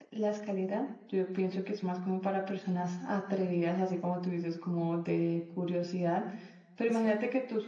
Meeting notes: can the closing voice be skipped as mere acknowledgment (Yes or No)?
Yes